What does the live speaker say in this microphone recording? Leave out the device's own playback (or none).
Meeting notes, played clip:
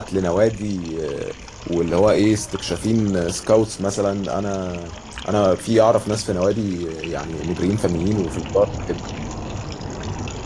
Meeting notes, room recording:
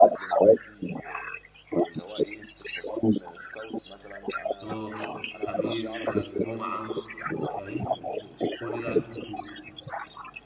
اه الخميس الجمعه فاهم كل ده أجازة فيه.